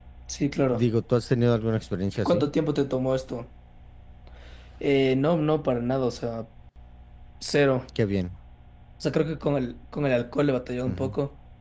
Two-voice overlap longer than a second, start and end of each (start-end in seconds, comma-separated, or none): none